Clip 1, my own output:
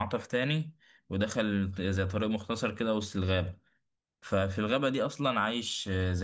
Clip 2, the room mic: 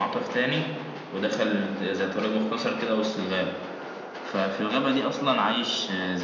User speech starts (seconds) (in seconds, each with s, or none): none